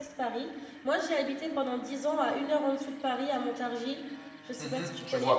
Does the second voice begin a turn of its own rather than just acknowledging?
Yes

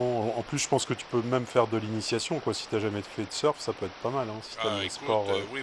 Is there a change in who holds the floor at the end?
Yes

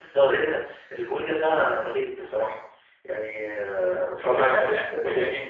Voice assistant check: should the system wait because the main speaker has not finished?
No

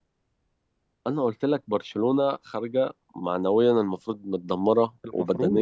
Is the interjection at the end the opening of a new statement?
No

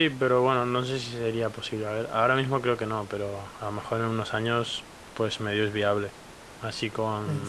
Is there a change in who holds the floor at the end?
No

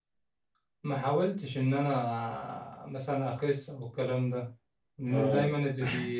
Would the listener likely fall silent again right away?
Yes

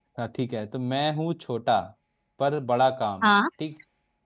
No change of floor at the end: Yes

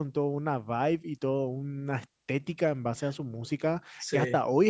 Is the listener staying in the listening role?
Yes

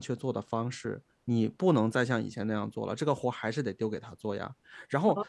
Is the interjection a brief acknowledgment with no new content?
No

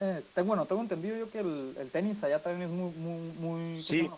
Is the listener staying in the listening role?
No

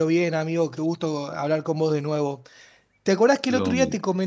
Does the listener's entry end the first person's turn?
No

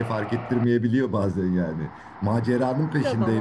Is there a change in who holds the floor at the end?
No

